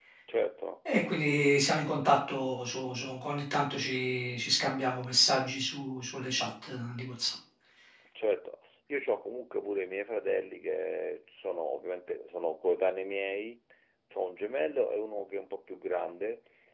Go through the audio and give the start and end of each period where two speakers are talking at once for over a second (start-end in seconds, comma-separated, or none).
none